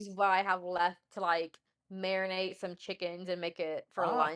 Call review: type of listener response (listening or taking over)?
taking over